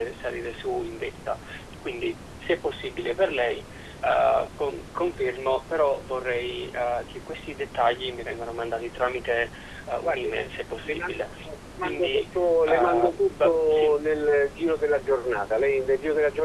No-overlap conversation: No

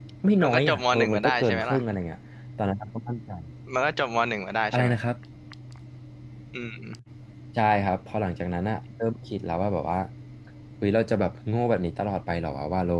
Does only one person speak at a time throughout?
No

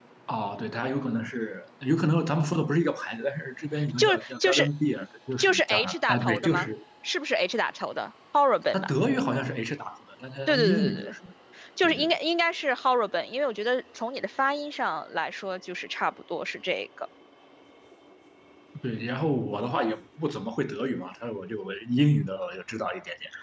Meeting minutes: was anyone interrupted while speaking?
Yes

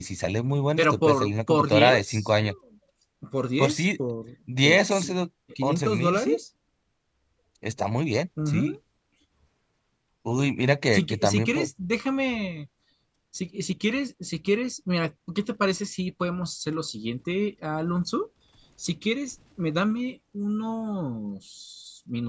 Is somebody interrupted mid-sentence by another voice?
Yes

